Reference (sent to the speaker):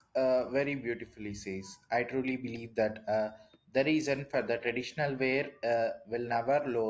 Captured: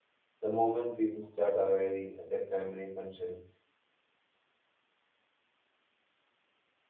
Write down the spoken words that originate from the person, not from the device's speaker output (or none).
The moment people start arriving at a family function